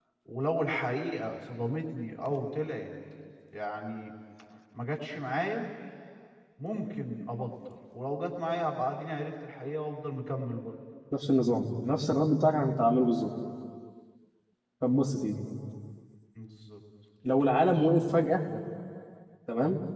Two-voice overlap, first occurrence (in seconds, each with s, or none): none